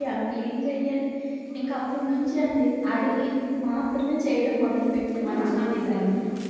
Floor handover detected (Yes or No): Yes